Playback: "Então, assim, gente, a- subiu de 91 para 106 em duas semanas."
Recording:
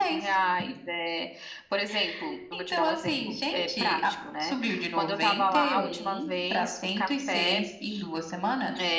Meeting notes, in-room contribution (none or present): present